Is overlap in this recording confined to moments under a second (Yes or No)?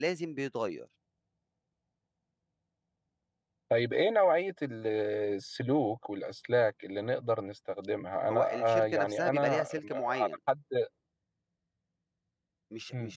No